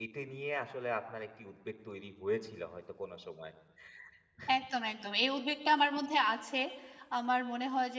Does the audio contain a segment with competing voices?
No

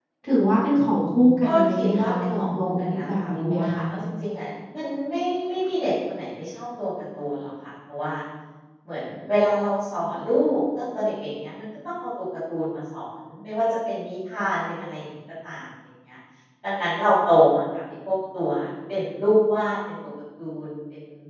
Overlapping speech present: Yes, from 1.4 s

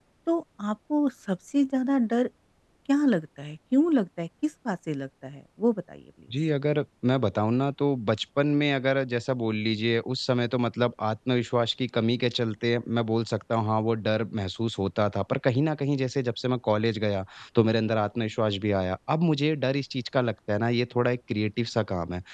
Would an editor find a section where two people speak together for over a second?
No

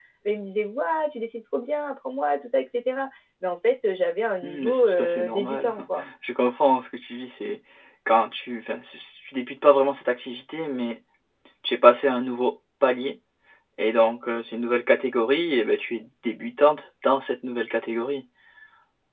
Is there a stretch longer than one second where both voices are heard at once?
Yes, from 4.4 s

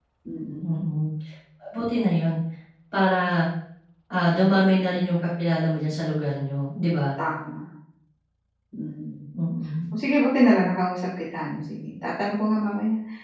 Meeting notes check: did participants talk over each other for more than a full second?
No

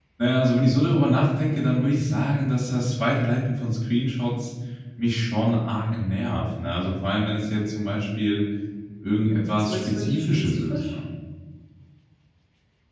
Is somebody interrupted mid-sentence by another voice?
Yes, from 9.2 s

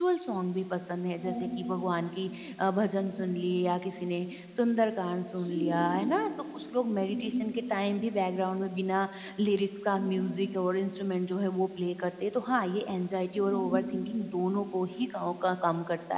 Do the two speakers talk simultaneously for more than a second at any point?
No

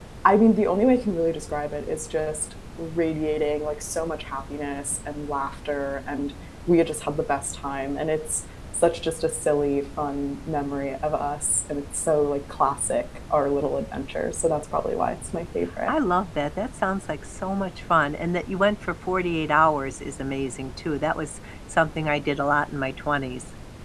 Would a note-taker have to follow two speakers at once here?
No

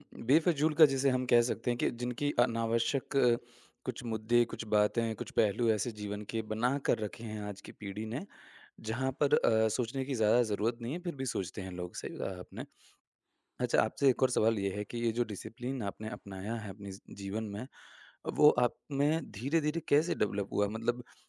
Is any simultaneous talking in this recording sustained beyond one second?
No

